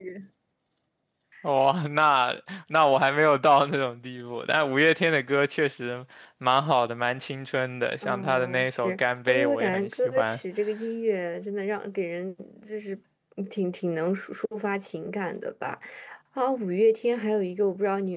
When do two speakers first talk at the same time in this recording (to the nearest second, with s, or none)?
8 s